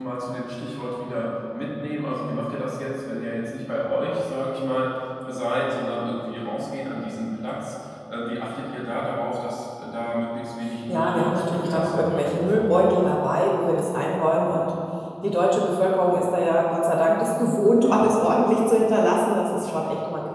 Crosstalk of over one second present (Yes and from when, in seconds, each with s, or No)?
Yes, from 10.9 s